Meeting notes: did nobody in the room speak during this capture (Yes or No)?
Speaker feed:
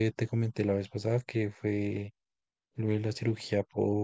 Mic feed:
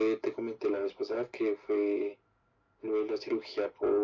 Yes